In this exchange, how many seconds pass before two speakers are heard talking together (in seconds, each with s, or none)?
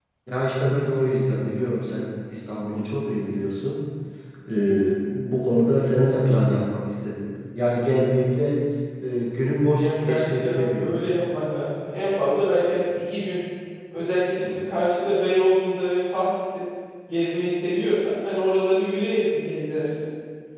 9.8 s